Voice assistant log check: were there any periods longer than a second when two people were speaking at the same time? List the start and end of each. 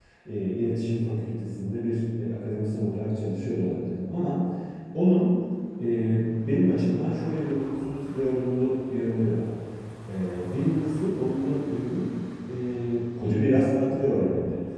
none

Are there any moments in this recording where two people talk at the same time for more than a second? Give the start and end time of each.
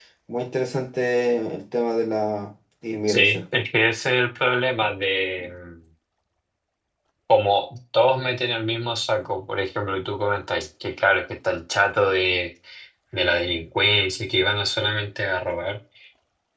none

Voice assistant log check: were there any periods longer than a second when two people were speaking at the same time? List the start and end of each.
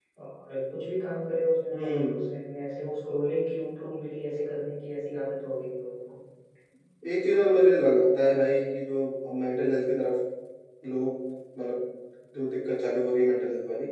none

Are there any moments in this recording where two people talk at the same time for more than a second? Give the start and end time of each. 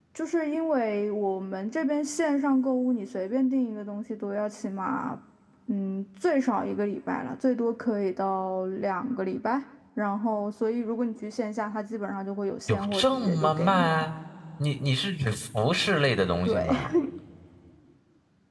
12.7-14.1

